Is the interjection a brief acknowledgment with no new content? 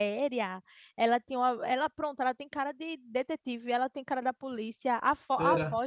Yes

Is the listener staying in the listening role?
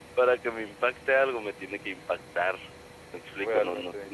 Yes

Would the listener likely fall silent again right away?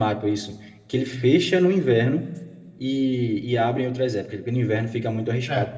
No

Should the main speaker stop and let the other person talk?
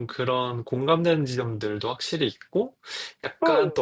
Yes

